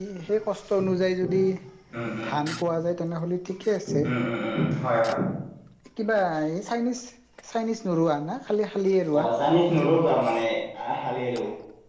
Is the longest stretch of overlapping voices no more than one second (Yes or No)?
Yes